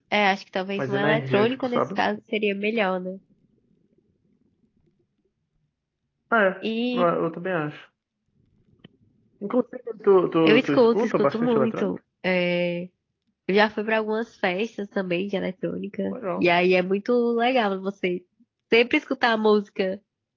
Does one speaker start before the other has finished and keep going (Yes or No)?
Yes